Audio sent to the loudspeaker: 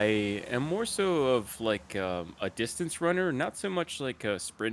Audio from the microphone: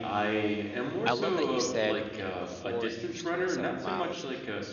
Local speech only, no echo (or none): I love that you said, you know, before you used to run seven miles